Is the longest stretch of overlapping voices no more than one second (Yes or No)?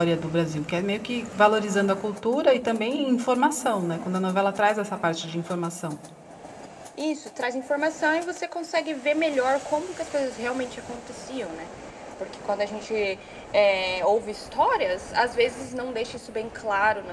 Yes